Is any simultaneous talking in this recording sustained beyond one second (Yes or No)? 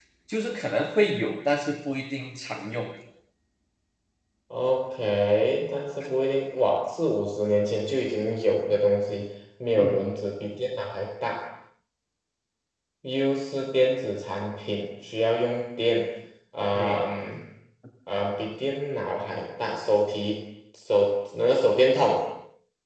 No